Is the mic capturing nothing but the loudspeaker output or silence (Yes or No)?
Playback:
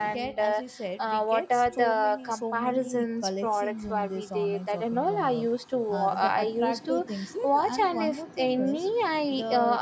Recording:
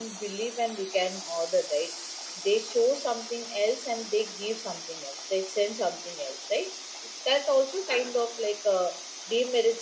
No